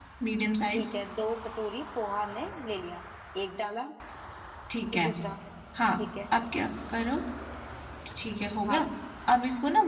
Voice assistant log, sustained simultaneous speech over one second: none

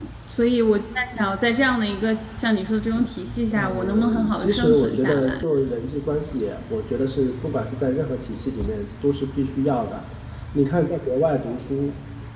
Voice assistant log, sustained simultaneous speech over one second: present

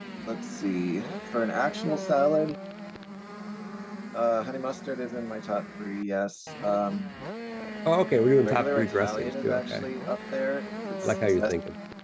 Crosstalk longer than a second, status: present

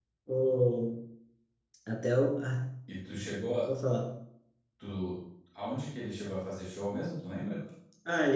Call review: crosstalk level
none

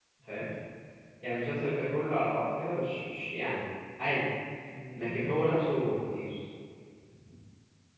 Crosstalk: present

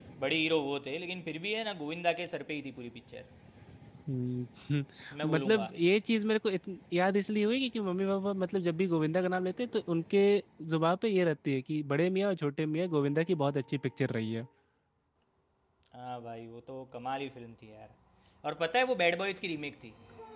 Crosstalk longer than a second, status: none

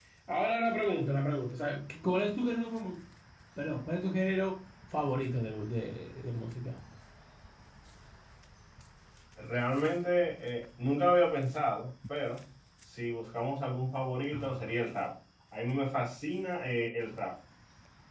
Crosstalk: none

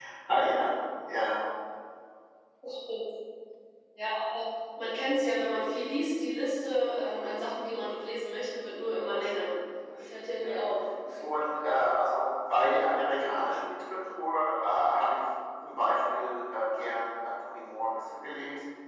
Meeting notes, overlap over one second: none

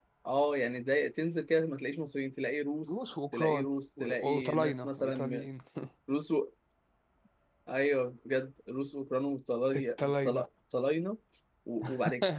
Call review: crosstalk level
present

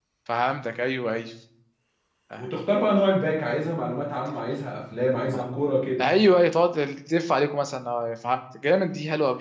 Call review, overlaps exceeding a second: none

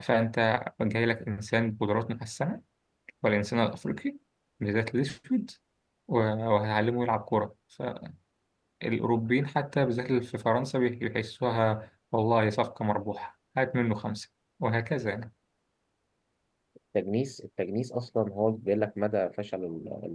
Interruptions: none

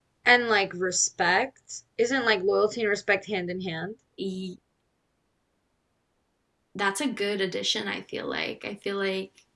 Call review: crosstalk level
none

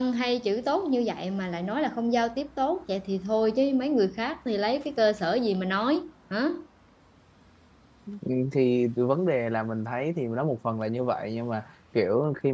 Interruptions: none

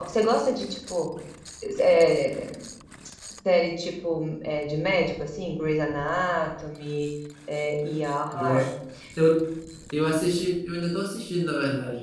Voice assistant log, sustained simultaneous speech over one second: none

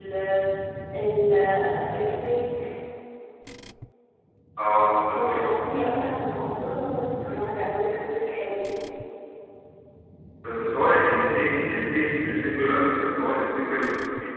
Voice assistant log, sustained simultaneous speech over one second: none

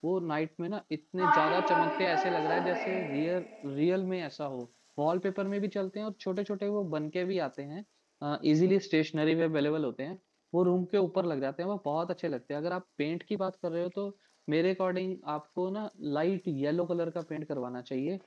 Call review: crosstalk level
present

